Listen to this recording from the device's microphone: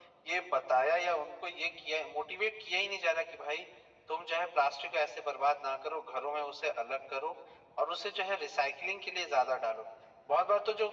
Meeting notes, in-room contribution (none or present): none